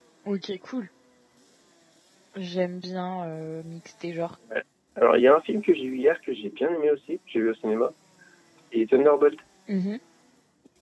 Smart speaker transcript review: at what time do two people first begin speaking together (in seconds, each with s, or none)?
none